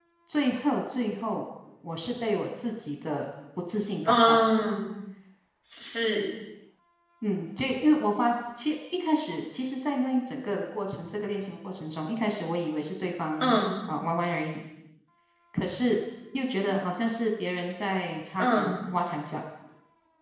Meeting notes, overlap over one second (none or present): none